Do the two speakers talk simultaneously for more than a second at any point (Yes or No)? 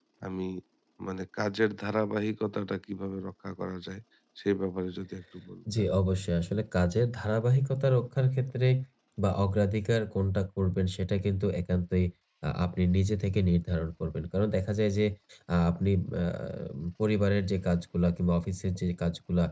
No